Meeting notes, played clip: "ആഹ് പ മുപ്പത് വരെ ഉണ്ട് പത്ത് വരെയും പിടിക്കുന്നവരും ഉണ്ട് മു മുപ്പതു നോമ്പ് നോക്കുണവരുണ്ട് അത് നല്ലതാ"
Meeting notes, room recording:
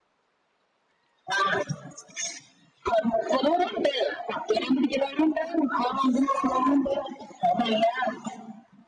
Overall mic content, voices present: echo only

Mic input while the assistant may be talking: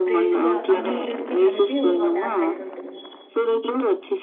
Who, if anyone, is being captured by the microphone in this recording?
both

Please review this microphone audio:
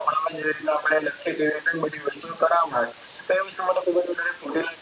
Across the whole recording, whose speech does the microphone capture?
echo only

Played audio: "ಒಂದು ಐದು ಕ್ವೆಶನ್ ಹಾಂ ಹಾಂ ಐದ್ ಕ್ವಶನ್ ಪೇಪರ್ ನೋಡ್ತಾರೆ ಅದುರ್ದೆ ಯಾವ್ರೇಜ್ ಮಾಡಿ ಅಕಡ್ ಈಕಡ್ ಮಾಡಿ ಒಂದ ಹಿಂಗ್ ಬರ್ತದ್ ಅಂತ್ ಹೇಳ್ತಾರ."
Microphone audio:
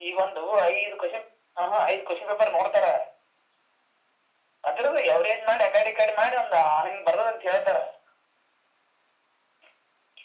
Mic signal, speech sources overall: echo only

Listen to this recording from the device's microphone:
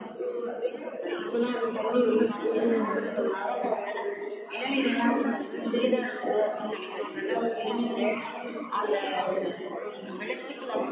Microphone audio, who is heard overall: both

